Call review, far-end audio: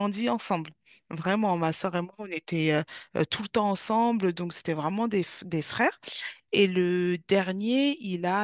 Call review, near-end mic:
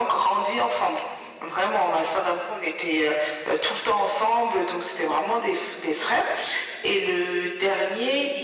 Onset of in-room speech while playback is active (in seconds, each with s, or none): none